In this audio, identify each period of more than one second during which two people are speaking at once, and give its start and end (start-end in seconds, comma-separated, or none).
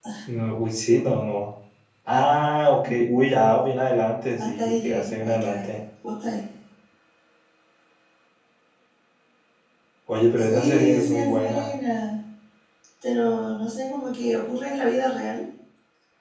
4.4-5.7, 10.4-11.7